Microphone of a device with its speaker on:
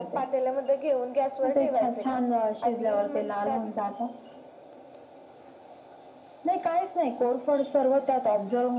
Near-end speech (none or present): none